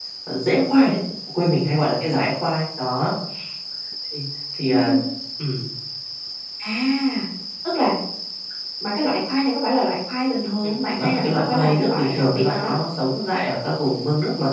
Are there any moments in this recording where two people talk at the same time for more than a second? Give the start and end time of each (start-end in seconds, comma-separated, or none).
10.6-12.8